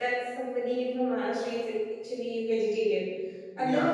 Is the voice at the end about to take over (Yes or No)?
Yes